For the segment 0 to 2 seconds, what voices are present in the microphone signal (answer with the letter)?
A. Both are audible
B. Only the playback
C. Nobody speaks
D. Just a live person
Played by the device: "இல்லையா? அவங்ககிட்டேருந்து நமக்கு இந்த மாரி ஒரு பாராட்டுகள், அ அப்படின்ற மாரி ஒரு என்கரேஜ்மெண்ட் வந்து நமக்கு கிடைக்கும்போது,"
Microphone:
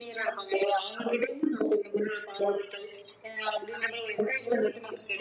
B